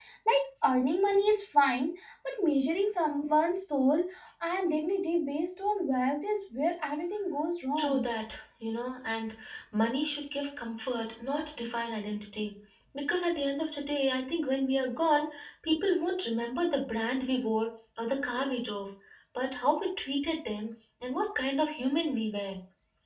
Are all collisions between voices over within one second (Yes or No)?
Yes